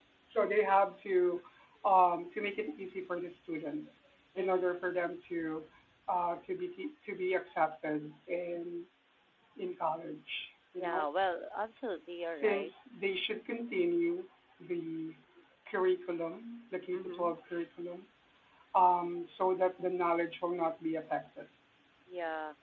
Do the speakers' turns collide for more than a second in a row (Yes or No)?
No